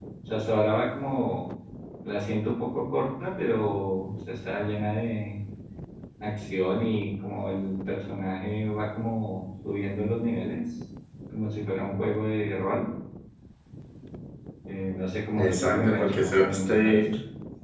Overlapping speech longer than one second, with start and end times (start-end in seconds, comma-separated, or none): 15.4-17.0